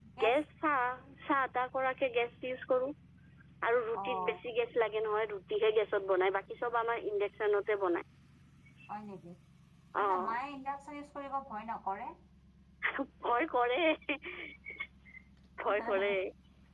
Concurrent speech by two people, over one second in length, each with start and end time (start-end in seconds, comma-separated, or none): none